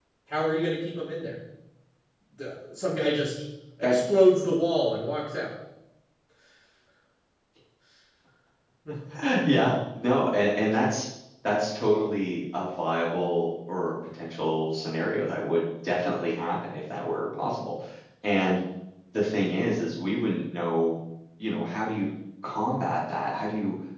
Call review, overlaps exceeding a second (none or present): none